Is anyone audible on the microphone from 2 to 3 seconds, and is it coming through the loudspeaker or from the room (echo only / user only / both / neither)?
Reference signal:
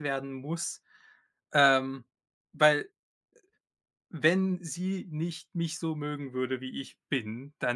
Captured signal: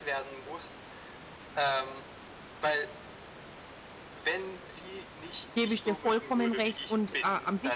echo only